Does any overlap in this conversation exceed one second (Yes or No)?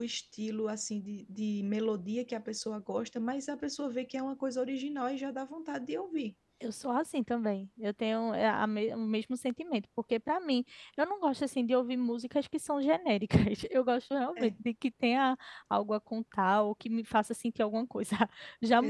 No